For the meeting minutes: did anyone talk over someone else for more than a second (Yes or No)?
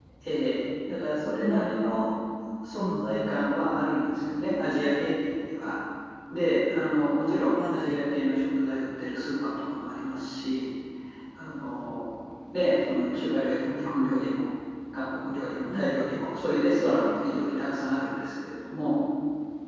No